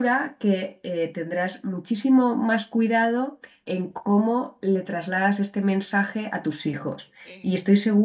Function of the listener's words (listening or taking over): listening